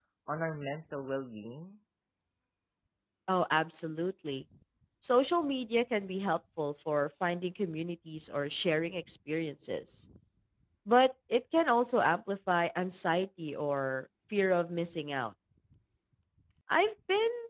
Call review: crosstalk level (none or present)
none